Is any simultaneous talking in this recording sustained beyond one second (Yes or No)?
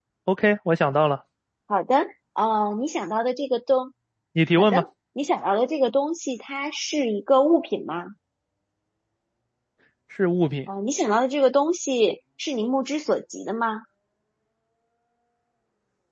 No